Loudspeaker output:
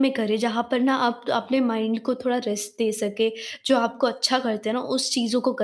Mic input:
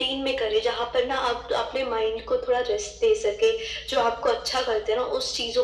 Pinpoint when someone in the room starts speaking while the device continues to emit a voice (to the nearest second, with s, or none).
none